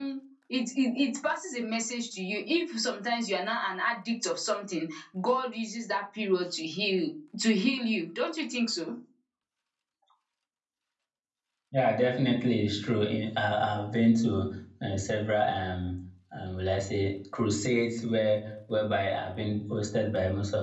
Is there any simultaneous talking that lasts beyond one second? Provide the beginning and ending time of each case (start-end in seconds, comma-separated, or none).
none